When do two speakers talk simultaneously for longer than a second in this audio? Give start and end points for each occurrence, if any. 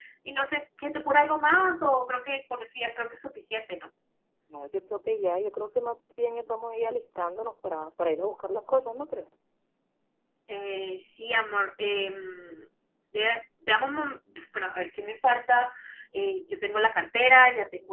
none

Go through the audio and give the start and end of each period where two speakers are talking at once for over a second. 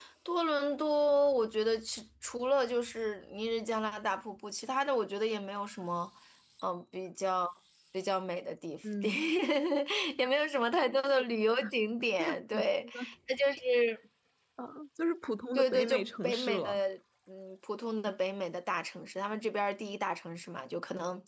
15.5-16.8

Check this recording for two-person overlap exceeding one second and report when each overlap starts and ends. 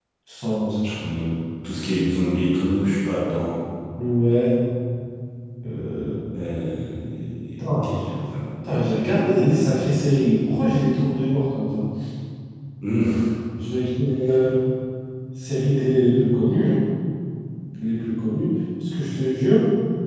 none

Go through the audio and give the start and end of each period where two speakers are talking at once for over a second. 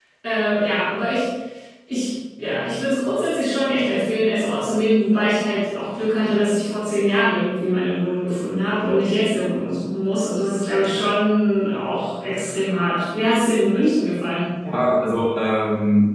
none

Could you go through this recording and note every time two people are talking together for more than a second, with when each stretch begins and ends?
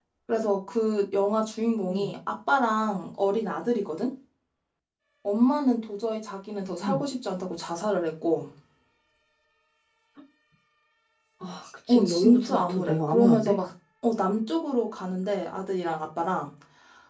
11.9-13.6

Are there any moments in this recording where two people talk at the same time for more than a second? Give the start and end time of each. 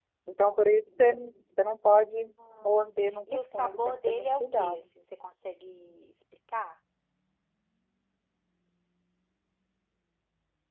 3.3-4.8

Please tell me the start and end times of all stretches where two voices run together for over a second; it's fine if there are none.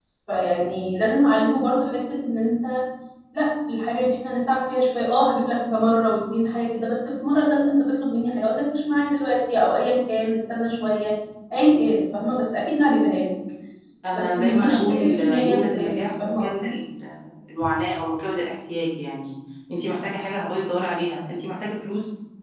14.1-16.7

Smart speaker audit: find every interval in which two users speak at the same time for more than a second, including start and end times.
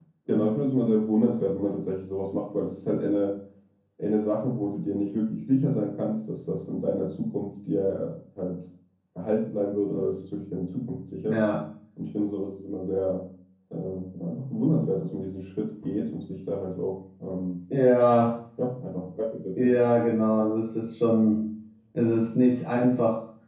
none

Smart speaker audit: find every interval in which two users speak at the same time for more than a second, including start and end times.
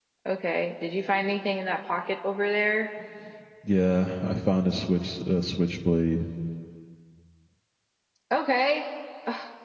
none

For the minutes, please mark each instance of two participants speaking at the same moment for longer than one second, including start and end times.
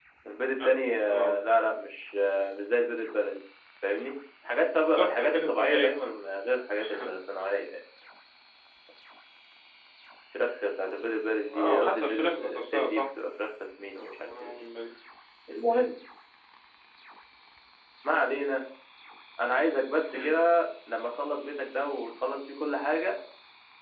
4.8-6.1, 11.5-13.0

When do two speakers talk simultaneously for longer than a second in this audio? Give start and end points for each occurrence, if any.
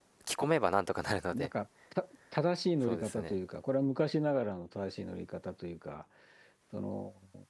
none

